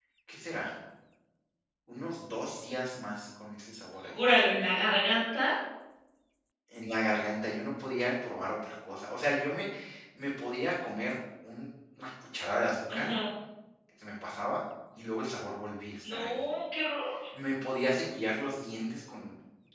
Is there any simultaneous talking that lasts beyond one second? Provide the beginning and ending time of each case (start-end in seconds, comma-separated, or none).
none